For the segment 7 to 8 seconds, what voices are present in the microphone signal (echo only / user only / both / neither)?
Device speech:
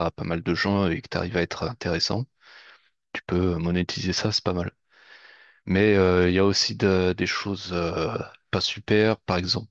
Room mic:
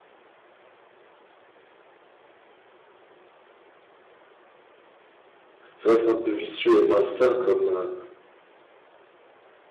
user only